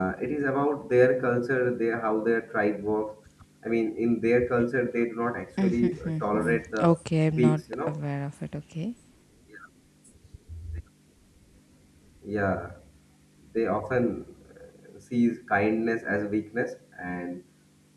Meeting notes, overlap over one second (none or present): present